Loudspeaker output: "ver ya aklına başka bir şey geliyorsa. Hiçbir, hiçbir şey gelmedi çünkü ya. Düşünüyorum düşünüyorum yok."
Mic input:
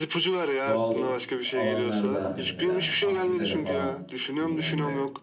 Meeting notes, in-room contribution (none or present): present